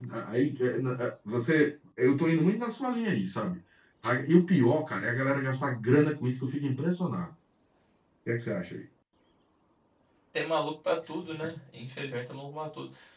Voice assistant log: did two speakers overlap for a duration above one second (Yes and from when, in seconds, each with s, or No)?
No